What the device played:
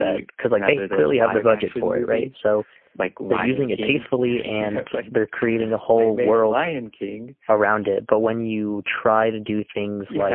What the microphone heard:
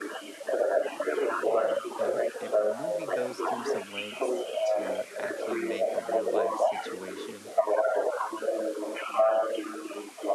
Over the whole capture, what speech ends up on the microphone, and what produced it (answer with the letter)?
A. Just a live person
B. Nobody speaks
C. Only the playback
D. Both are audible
D